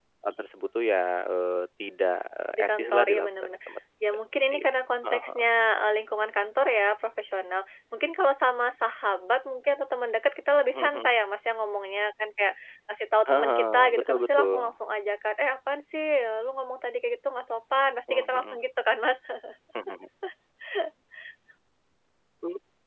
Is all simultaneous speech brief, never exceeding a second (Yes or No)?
No